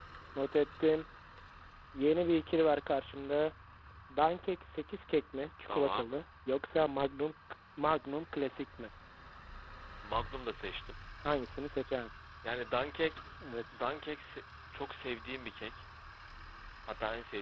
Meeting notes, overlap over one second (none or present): none